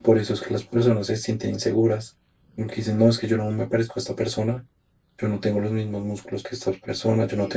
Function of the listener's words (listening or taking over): taking over